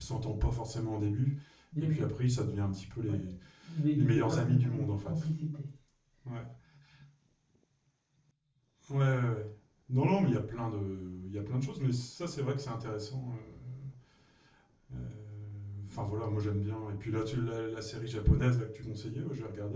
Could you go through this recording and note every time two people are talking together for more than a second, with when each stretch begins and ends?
3.9-5.1

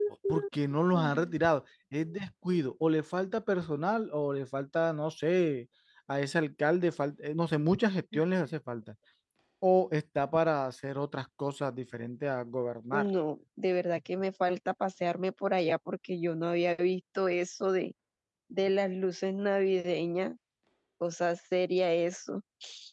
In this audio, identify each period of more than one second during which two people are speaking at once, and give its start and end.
none

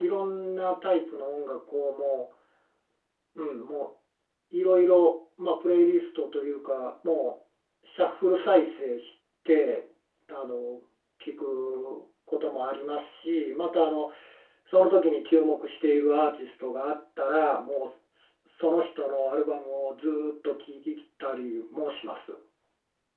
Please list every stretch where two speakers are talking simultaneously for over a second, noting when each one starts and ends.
none

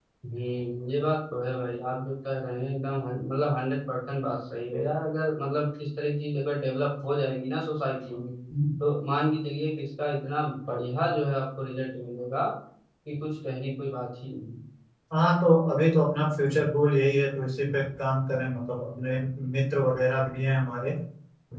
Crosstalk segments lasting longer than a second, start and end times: none

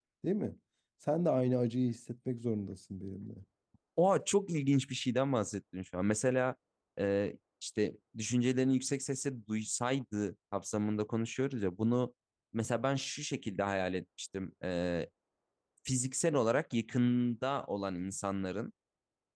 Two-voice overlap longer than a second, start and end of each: none

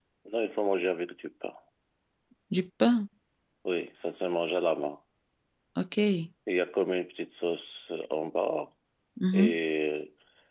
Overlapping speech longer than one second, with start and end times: none

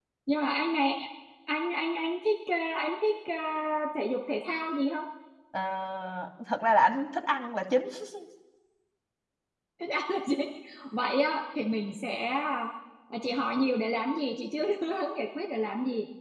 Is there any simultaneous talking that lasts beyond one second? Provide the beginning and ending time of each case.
none

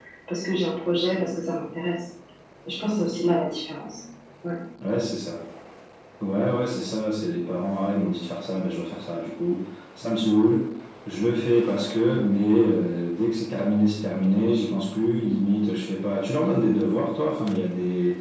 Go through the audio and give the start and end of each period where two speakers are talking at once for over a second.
none

